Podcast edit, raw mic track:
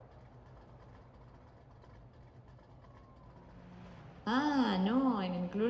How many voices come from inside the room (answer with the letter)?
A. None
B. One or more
B